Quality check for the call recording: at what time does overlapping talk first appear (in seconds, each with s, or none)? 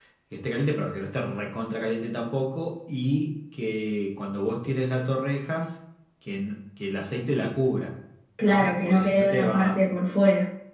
8.4 s